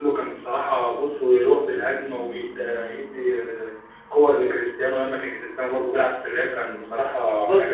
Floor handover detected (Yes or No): Yes